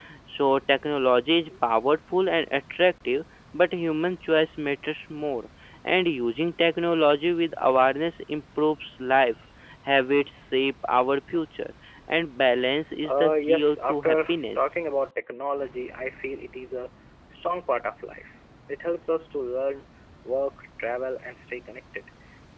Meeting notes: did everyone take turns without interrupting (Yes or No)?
No